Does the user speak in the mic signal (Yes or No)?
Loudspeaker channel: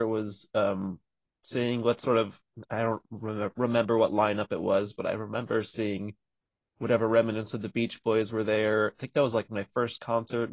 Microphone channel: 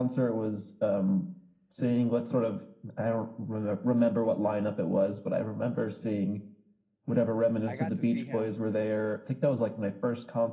Yes